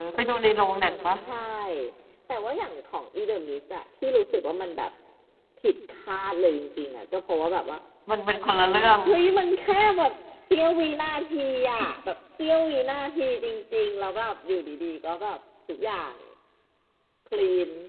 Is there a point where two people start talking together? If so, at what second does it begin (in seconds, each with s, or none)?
none